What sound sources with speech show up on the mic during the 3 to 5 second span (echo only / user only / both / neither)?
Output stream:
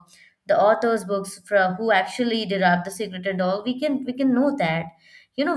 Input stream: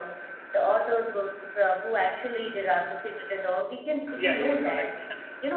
both